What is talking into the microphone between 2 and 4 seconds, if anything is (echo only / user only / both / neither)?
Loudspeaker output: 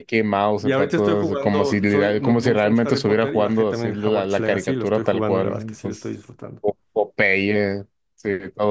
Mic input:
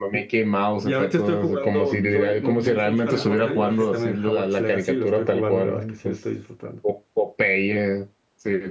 both